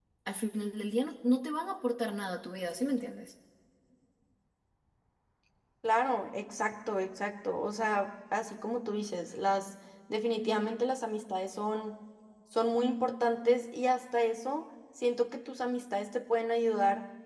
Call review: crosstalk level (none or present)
none